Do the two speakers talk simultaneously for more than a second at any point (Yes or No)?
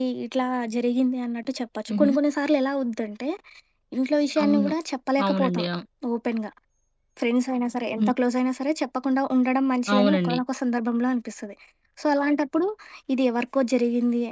No